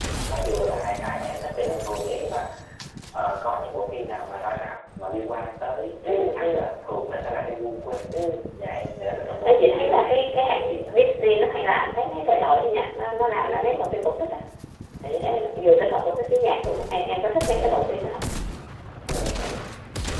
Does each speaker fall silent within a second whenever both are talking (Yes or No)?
No